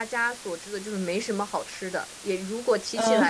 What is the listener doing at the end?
listening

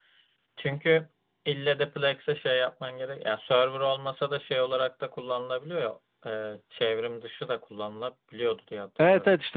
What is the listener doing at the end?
taking over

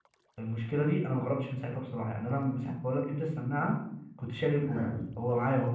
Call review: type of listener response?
listening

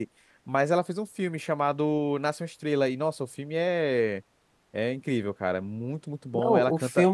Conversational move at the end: taking over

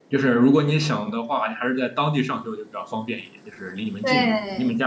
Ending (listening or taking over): taking over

